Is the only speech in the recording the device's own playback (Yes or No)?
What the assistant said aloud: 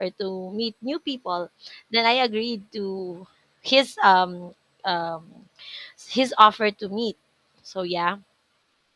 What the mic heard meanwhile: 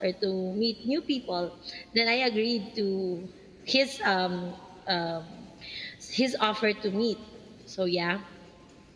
Yes